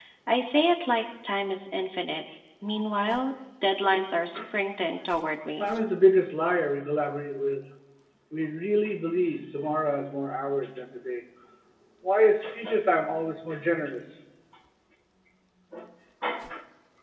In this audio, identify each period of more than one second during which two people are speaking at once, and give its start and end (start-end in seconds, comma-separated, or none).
none